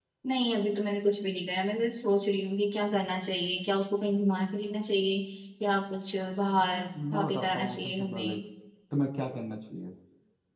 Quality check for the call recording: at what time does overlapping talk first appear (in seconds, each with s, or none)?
7.0 s